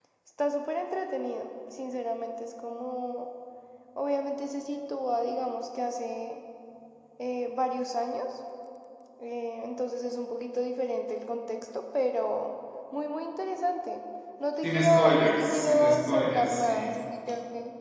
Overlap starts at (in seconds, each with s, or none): 14.6 s